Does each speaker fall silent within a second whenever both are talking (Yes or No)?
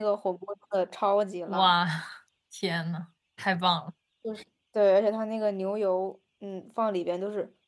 Yes